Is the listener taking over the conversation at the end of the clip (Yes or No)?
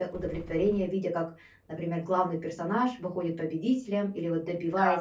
Yes